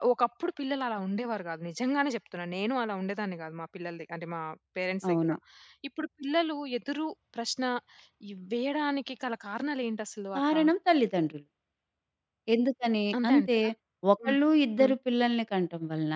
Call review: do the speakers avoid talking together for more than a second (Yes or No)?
Yes